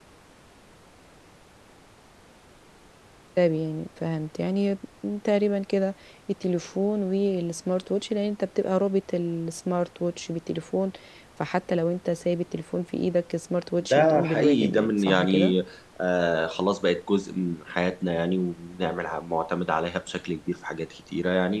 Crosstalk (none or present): present